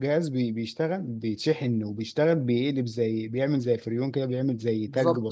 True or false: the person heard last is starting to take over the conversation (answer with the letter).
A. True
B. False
A